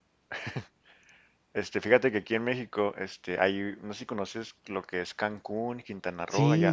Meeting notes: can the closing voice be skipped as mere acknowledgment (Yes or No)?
Yes